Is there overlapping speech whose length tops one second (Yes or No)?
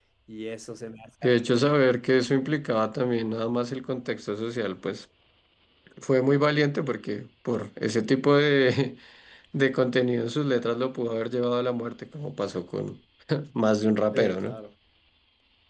No